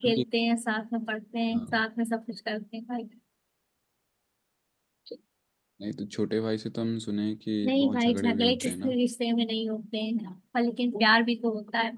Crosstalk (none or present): present